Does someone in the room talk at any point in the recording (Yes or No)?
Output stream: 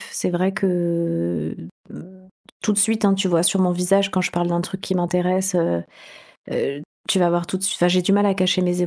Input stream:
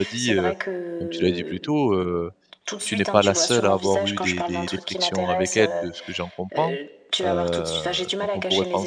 Yes